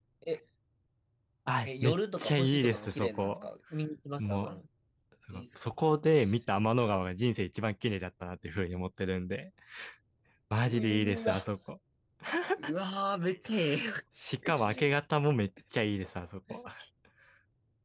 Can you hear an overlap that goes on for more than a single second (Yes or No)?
Yes